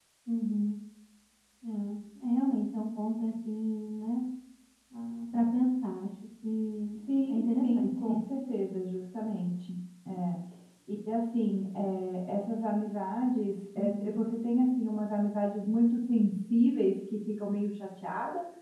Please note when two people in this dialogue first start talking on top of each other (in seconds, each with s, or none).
7.0 s